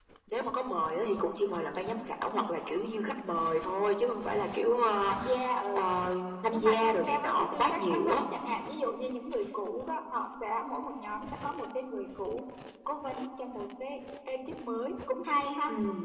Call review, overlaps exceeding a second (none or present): present